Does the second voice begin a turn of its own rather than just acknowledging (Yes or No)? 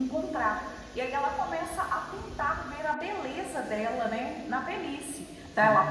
No